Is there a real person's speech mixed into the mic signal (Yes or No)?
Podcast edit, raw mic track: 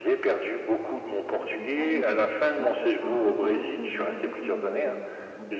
Yes